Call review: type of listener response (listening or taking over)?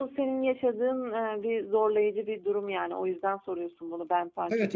taking over